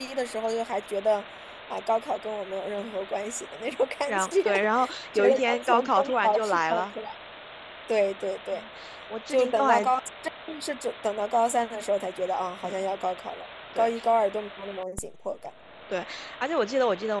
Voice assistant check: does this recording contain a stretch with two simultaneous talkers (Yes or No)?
Yes